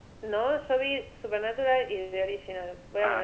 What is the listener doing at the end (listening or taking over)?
taking over